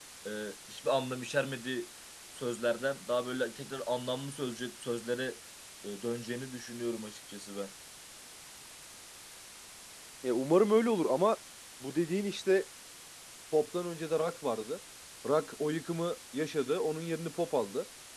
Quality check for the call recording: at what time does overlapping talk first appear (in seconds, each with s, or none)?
none